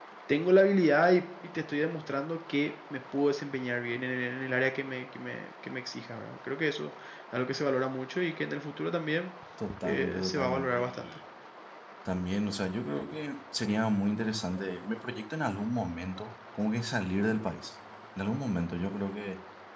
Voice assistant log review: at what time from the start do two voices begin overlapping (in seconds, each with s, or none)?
9.8 s